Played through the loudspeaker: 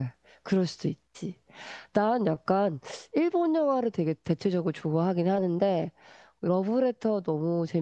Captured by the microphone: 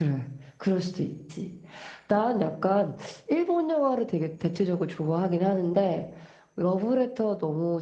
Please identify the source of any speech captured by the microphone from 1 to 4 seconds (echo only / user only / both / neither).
echo only